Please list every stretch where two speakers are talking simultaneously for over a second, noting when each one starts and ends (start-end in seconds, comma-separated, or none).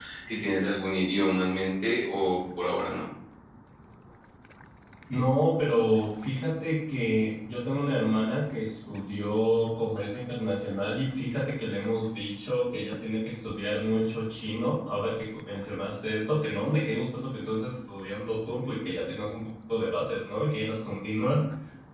none